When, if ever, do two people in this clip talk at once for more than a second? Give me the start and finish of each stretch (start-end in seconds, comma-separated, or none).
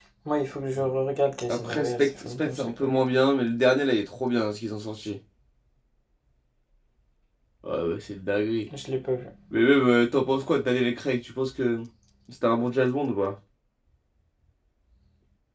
1.5-3.0